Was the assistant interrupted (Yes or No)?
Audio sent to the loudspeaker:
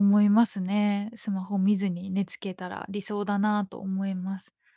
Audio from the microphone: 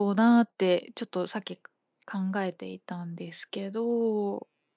Yes